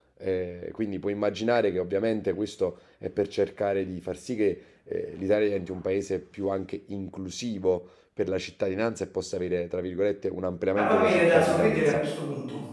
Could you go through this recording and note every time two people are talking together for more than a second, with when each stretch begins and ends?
10.8-12.0

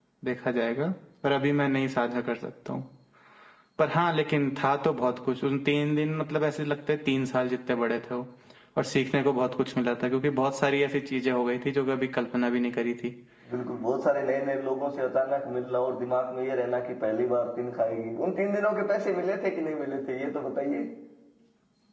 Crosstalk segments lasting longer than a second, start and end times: none

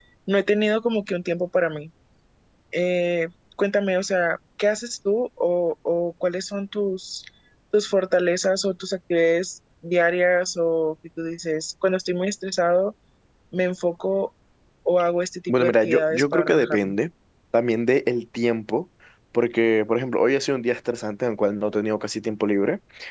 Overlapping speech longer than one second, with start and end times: 15.5-16.9

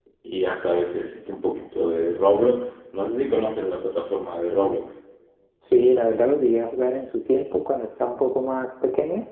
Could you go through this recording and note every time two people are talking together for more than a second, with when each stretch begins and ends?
none

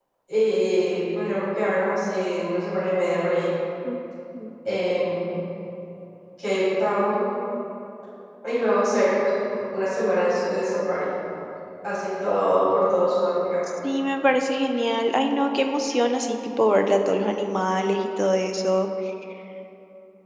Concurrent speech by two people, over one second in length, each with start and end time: none

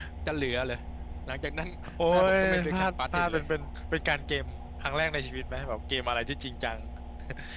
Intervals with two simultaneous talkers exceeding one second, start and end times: 2.1-3.4

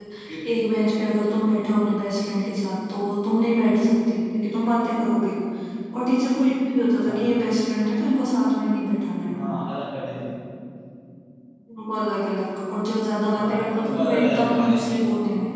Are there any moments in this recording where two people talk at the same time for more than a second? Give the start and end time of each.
13.4-15.0

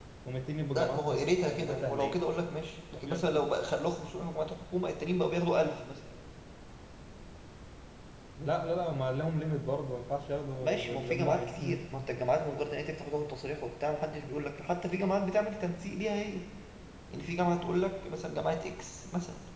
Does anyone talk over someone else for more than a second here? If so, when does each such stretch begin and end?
0.7-2.2, 10.6-11.8

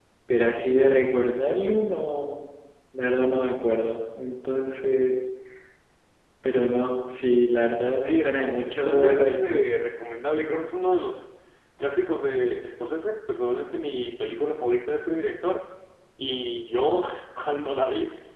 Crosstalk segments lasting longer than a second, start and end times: 8.0-9.6

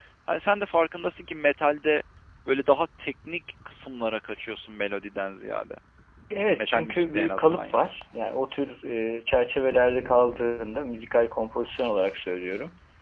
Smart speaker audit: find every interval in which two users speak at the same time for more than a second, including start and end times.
6.6-7.9

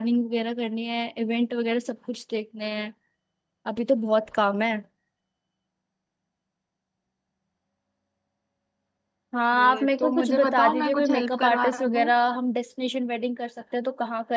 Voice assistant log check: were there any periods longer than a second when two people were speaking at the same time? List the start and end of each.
9.5-12.1

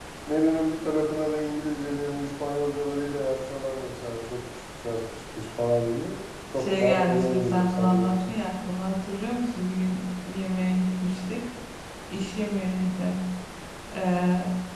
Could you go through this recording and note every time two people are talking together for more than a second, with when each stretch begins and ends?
6.6-8.3

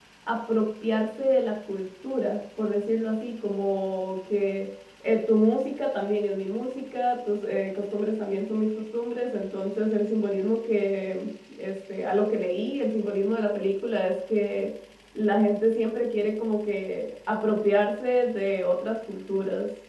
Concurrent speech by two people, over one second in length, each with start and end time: none

